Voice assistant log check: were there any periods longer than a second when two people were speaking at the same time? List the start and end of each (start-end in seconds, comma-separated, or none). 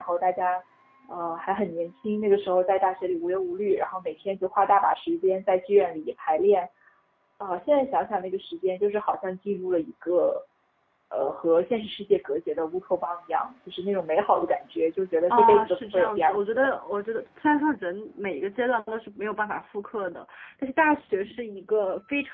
15.3-16.7